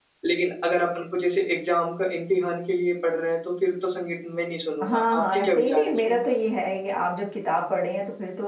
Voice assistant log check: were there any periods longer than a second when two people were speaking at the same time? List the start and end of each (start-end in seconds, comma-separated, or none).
4.8-6.2